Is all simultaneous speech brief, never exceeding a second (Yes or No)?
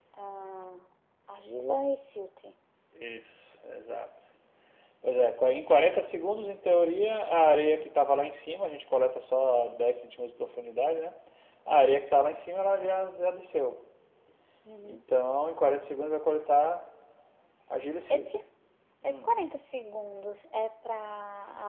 Yes